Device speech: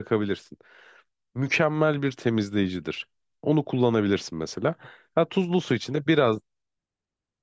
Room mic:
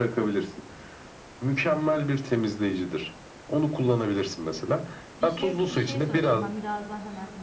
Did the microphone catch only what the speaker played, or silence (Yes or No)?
No